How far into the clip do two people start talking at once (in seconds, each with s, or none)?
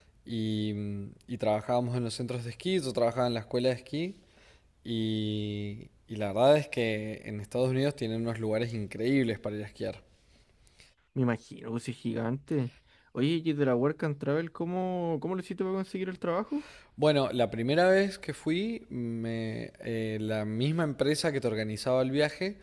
none